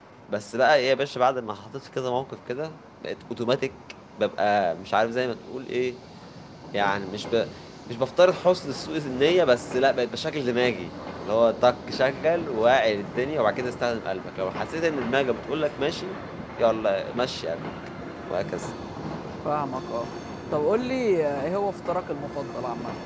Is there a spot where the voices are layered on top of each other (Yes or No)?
No